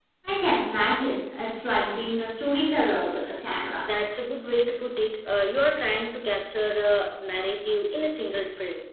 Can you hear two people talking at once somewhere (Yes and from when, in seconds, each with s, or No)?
No